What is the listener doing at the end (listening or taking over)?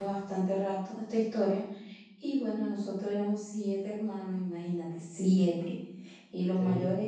listening